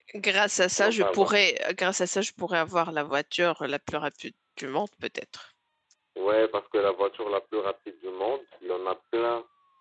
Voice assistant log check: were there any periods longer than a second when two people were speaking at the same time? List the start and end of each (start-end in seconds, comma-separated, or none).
none